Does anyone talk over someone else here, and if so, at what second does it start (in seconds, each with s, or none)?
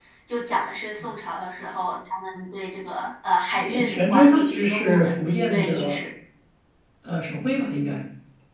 3.5 s